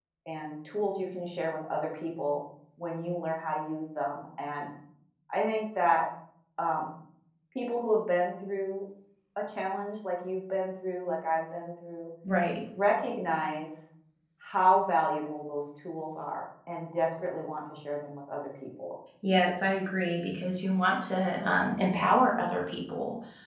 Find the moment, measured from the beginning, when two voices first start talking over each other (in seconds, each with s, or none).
none